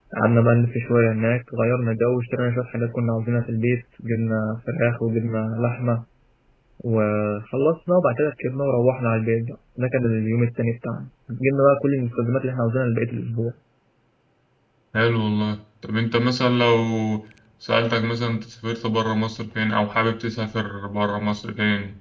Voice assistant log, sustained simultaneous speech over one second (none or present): none